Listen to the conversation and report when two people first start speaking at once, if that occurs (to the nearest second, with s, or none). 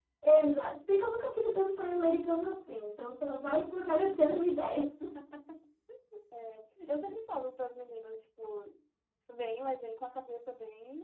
none